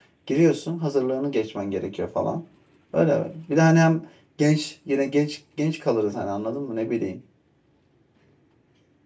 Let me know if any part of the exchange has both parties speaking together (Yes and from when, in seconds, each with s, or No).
No